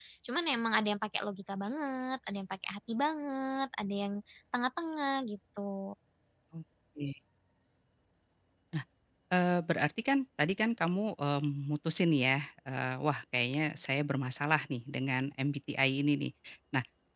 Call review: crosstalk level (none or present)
none